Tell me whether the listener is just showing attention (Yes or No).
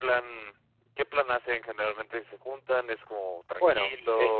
No